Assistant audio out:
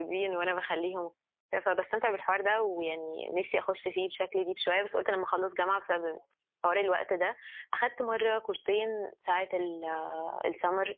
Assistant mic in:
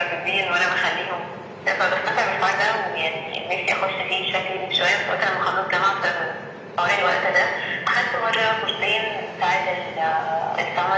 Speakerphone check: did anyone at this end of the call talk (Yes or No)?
No